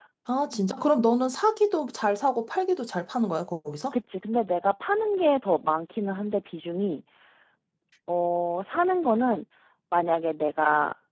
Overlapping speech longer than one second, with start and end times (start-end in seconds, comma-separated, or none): none